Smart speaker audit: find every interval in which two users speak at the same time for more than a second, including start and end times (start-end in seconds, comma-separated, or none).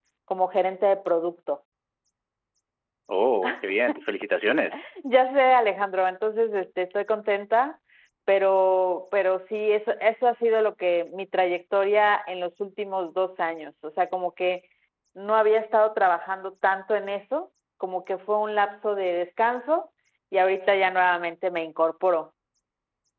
none